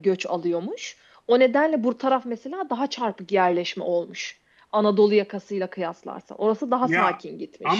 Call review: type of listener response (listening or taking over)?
taking over